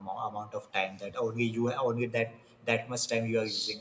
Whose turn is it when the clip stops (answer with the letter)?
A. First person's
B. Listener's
B